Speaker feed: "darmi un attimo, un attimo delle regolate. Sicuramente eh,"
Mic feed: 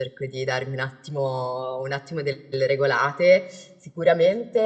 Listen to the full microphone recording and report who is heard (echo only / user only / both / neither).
echo only